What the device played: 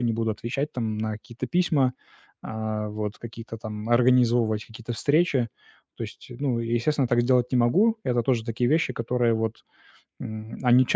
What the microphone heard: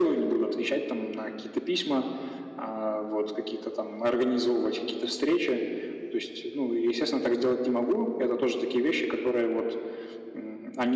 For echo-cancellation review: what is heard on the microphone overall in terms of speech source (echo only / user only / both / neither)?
echo only